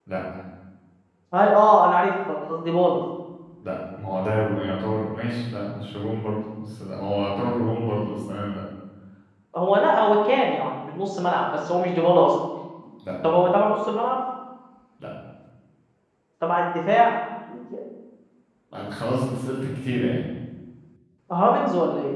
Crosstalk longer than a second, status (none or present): none